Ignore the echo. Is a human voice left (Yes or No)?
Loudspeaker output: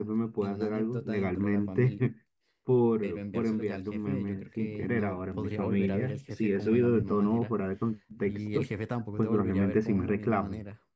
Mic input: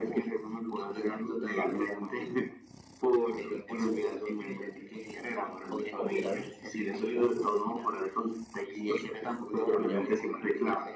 No